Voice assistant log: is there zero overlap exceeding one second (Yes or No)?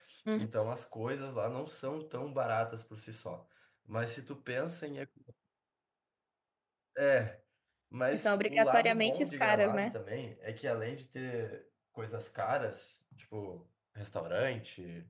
No